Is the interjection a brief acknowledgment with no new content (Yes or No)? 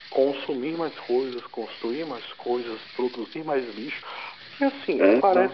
Yes